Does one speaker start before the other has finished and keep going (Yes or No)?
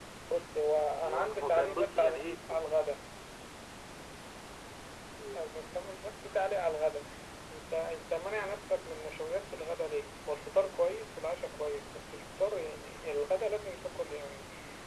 Yes